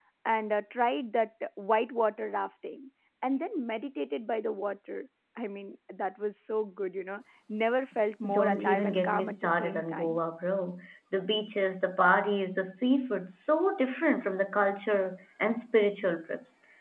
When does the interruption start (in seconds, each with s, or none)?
8.2 s